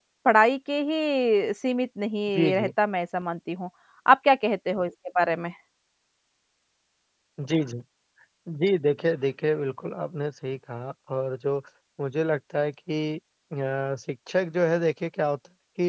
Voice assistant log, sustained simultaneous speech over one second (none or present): none